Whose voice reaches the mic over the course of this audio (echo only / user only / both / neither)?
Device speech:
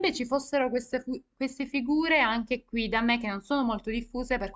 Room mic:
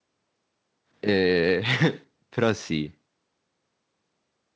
user only